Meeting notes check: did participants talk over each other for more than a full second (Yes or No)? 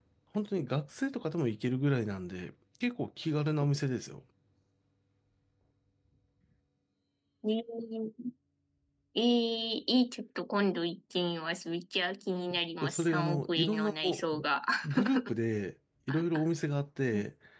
Yes